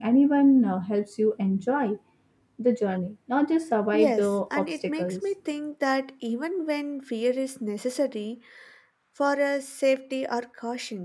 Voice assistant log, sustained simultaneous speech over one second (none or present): present